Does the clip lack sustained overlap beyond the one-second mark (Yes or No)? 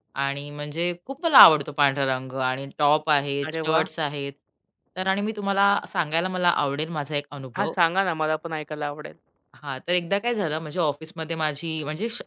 Yes